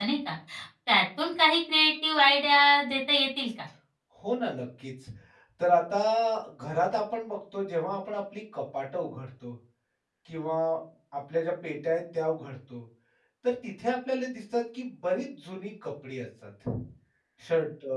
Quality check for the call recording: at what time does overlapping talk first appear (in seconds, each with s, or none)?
none